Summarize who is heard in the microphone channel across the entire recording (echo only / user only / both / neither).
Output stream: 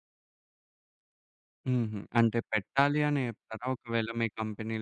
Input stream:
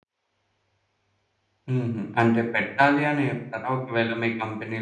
echo only